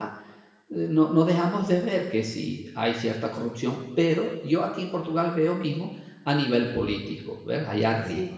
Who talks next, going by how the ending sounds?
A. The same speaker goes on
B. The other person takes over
A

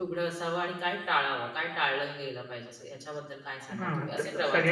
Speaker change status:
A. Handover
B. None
A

